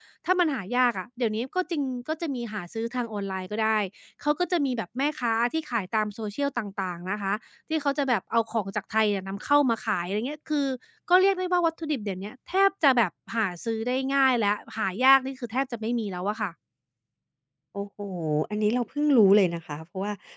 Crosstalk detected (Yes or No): No